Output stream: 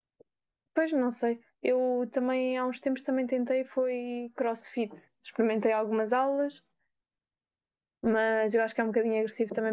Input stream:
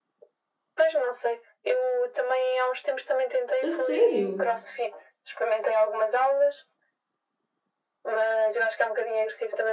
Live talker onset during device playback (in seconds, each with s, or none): 3.6 s